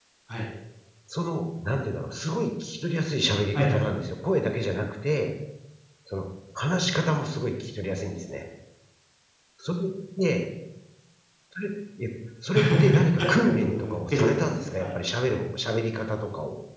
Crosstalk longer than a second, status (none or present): present